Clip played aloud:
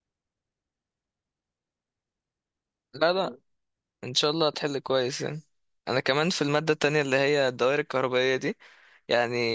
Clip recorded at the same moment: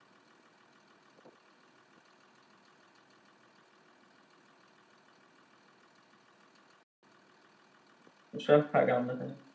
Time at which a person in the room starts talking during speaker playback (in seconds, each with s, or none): 8.3 s